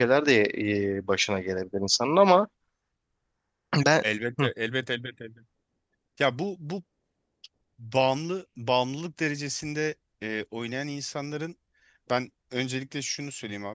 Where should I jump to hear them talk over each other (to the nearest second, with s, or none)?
none